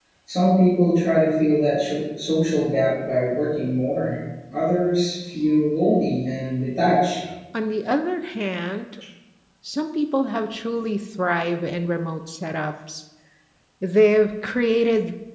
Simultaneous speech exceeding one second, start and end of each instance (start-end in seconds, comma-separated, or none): none